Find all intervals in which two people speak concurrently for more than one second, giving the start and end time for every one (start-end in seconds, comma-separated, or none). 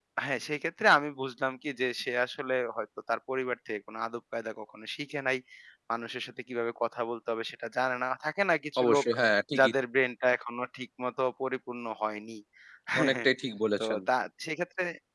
none